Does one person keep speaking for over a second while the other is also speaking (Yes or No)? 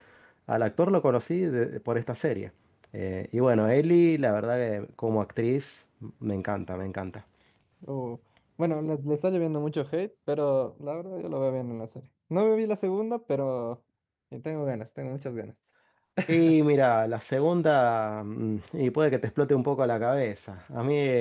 No